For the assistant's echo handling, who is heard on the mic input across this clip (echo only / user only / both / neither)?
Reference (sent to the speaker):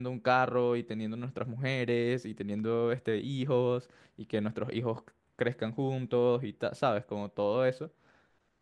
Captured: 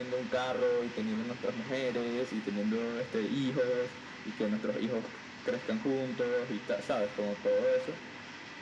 echo only